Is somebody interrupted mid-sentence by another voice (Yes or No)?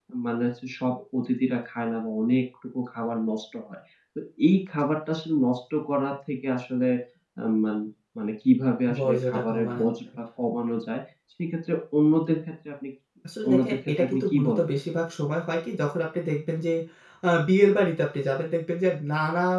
Yes